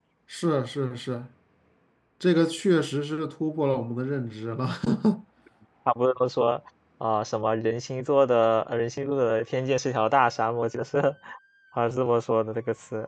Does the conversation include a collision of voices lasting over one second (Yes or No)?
No